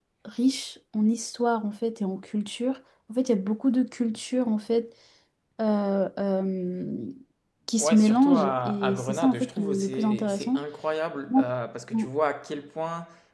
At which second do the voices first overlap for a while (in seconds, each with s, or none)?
7.8 s